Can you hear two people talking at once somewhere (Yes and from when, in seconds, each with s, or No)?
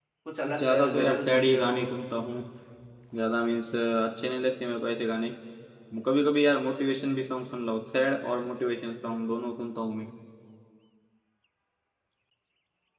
Yes, from 0.6 s